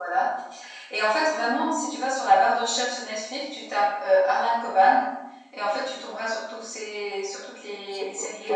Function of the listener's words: taking over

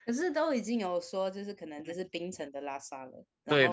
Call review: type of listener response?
taking over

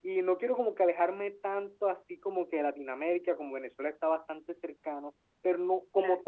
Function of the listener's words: listening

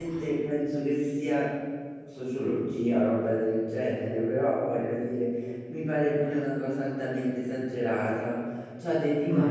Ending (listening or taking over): listening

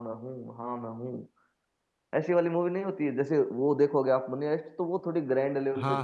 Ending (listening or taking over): taking over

